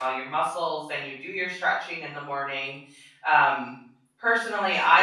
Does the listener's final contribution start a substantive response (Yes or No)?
No